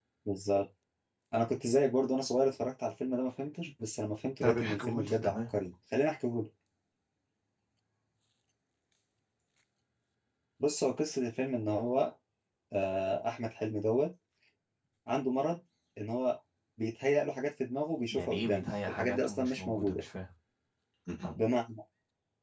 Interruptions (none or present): present